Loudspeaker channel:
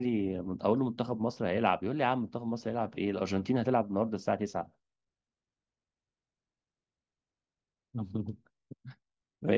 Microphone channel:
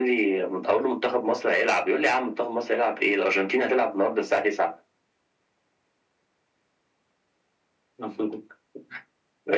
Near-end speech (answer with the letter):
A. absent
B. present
A